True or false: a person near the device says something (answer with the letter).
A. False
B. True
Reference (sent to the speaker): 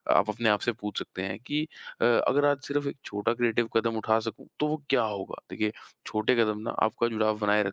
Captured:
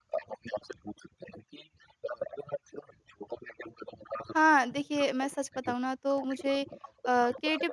B